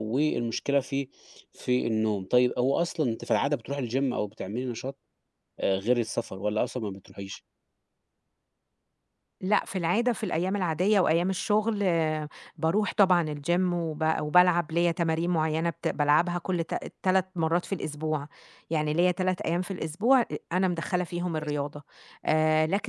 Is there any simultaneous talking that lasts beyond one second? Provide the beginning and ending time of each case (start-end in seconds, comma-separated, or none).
none